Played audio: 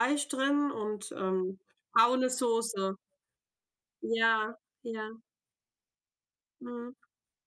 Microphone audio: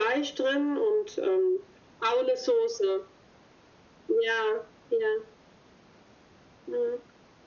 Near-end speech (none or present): none